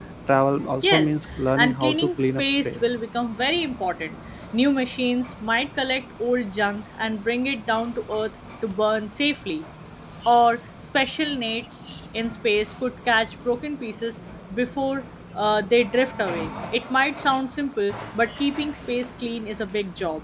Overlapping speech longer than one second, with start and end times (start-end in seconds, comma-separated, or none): 1.6-2.8